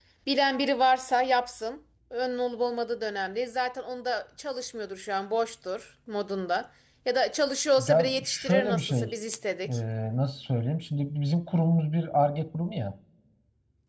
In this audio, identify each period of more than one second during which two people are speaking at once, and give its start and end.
7.8-9.1

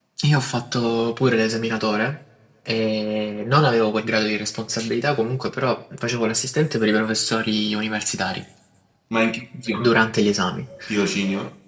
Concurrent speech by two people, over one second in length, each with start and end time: none

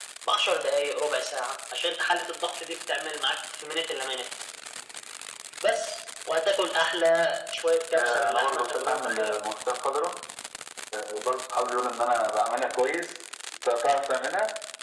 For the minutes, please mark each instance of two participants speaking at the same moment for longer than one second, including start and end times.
7.9-9.3

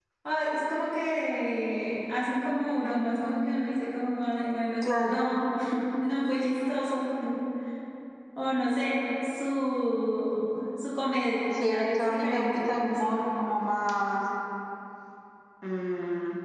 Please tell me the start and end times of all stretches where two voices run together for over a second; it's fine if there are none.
11.8-13.1

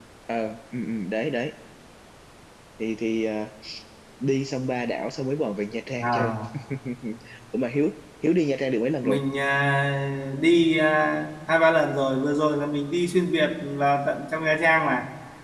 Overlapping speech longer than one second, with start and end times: none

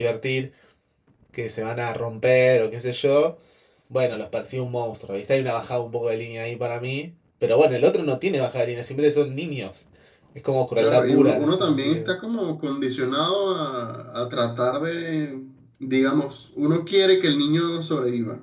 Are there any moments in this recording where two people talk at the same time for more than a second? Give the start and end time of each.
10.8-12.1

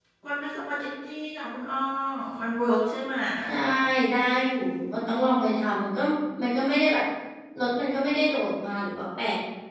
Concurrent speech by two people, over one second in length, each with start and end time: none

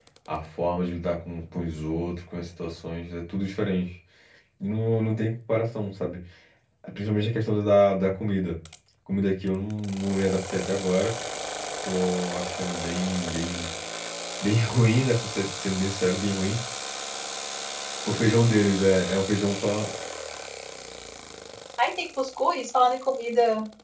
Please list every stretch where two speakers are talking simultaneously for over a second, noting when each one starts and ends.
none

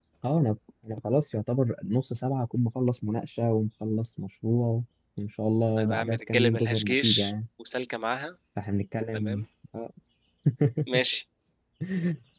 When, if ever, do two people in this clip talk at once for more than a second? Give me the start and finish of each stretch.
5.8-7.3

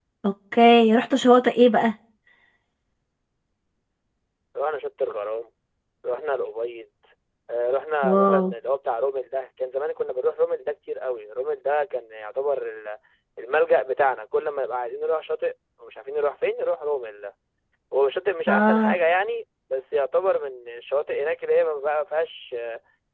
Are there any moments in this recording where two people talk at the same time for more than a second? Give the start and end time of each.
none

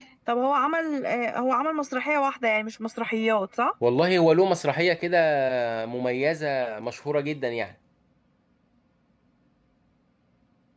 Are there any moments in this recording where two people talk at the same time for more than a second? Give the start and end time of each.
none

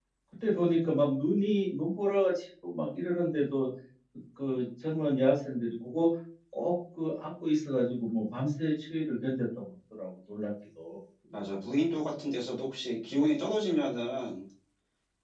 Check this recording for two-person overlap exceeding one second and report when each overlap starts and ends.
none

